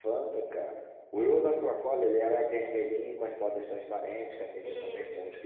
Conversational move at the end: listening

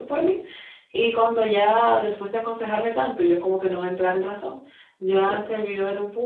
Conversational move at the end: listening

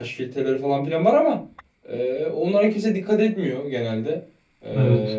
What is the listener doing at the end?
listening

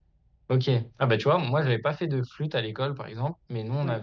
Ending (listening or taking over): listening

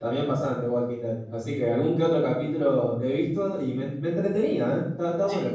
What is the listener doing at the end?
taking over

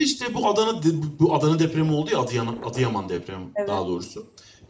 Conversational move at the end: listening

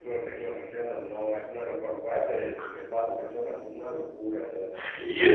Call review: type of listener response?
taking over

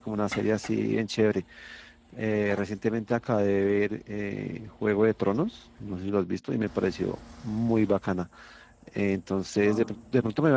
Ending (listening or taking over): listening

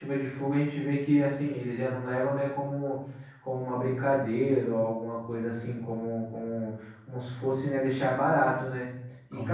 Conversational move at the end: listening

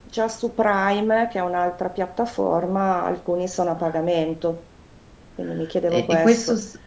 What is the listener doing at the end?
taking over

